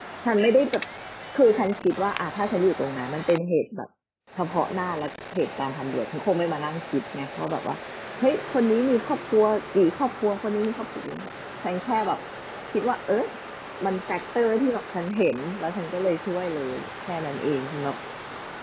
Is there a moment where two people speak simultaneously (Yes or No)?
No